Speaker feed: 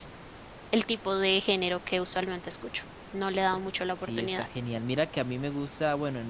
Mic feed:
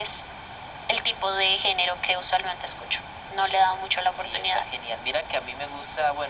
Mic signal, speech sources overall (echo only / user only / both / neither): echo only